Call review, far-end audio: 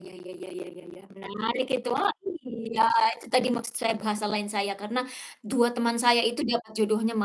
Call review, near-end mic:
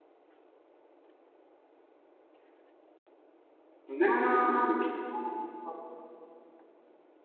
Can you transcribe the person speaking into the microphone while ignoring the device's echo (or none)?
nah, betul.